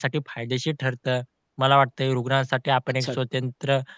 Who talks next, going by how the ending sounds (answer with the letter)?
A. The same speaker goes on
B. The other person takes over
A